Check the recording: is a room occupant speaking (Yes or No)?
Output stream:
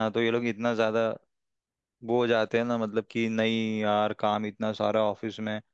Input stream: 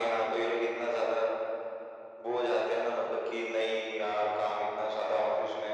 No